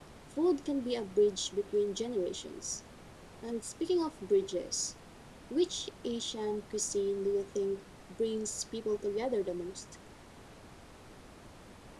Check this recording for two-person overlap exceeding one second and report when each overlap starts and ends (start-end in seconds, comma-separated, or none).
none